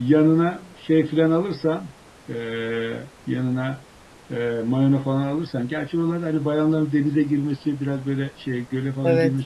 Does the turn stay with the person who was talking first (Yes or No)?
Yes